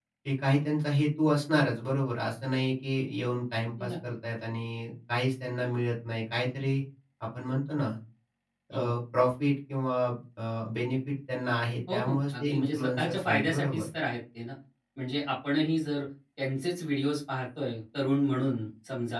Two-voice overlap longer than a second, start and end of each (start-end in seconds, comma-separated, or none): 11.9-13.8